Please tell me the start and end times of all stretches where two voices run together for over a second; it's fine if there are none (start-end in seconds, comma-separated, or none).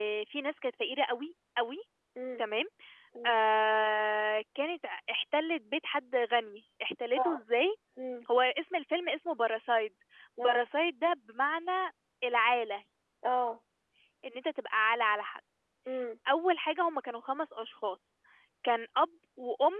none